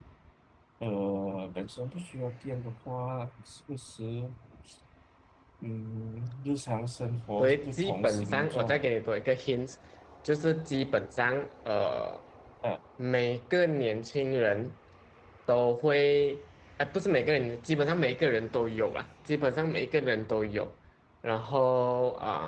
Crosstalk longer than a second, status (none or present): present